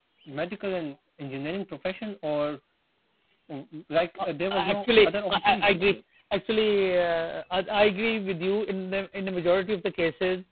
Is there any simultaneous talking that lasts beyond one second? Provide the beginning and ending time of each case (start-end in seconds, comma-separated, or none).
4.6-6.0